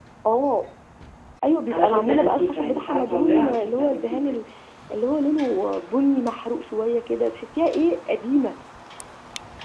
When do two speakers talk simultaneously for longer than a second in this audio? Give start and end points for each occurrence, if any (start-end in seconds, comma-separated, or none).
1.7-4.3